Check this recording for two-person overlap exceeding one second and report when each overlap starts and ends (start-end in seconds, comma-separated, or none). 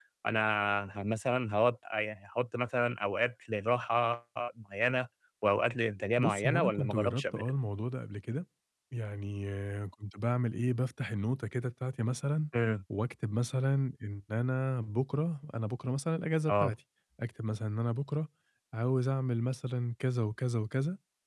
6.2-7.4